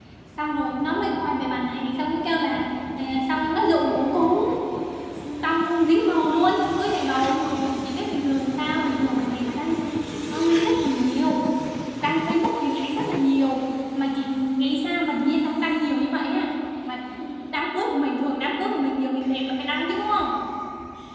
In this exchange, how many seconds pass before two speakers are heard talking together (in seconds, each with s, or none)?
none